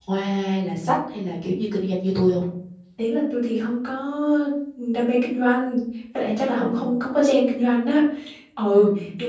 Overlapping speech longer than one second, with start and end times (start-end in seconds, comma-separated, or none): none